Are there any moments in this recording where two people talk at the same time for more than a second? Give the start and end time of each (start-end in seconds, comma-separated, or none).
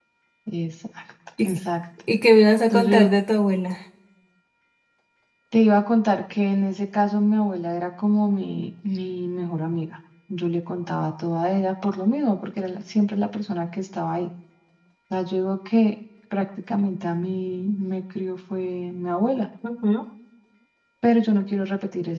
none